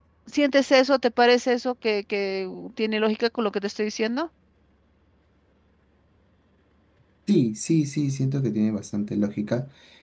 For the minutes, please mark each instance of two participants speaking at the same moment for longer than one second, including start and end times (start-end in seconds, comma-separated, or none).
none